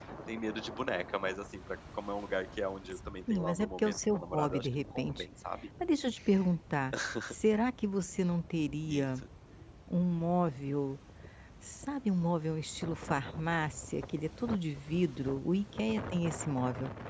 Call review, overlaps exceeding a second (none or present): present